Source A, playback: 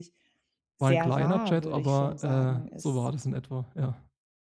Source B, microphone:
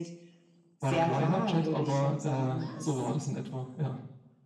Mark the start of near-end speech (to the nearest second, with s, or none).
none